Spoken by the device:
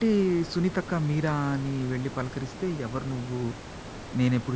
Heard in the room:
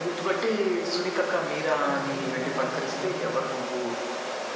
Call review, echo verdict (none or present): present